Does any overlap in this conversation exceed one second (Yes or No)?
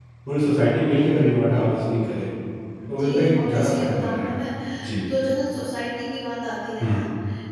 Yes